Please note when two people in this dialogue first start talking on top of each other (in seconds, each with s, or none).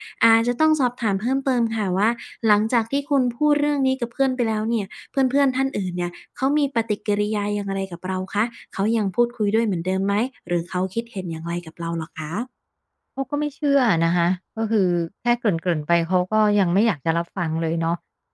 none